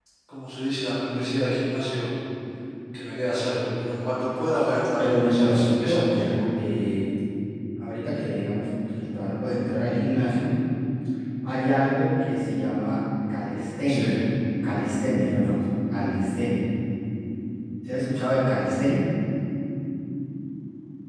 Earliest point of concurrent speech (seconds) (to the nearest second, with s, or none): 5 s